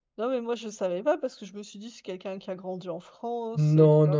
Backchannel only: No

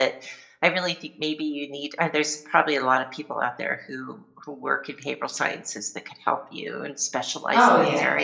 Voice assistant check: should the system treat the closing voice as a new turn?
Yes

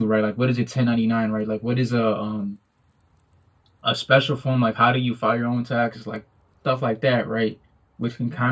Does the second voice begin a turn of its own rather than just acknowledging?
No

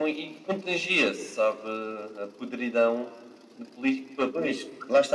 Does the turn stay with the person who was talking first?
No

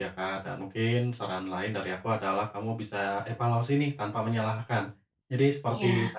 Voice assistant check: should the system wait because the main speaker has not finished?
Yes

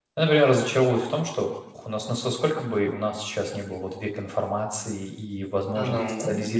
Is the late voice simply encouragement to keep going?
Yes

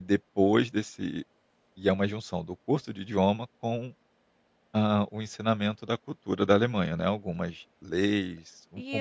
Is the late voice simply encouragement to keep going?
No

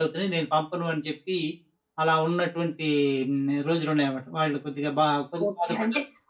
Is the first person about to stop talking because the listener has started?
Yes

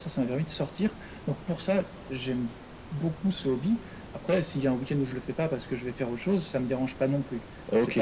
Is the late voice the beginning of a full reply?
Yes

